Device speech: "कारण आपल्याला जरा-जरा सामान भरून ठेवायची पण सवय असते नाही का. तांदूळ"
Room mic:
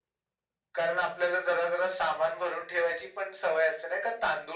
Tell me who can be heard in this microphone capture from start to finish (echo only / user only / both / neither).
echo only